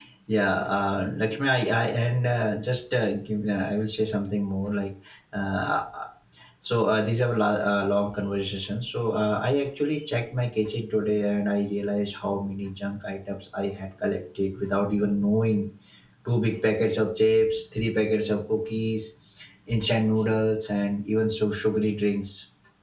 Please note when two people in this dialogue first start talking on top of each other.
none

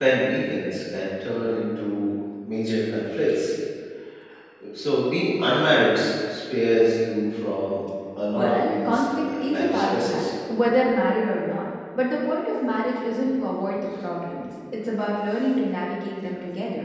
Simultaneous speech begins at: 8.4 s

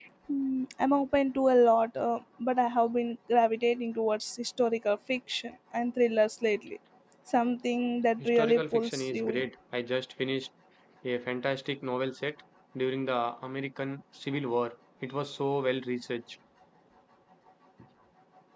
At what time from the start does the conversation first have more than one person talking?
8.2 s

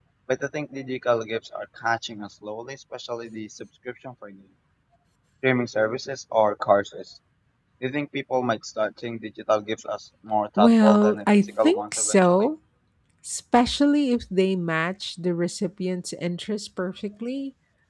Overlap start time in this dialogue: 10.6 s

